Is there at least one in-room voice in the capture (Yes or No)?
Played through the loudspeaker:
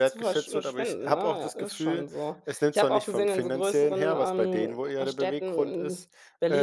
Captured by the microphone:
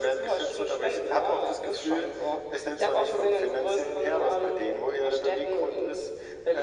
No